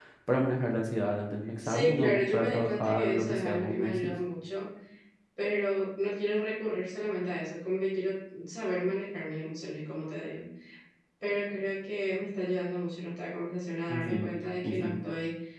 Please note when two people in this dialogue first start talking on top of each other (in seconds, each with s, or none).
1.6 s